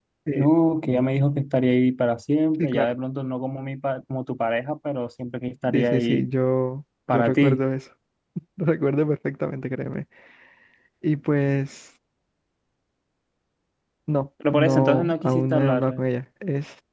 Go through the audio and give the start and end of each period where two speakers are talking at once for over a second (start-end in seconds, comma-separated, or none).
14.5-16.0